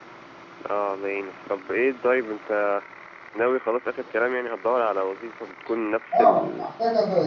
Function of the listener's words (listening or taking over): taking over